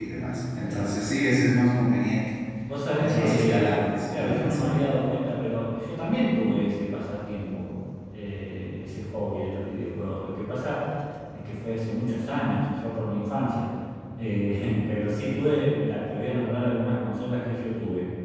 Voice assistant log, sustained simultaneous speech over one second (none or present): present